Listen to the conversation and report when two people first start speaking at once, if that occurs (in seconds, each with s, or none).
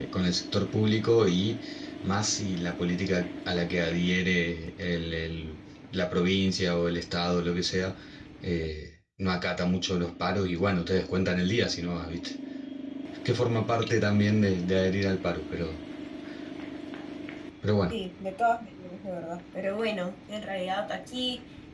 none